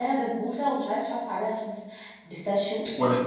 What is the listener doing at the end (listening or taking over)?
taking over